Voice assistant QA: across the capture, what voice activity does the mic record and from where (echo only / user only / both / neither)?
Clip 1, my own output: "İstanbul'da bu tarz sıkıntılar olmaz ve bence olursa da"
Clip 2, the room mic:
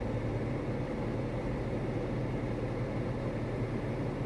neither